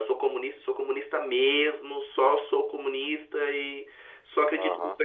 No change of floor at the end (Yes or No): Yes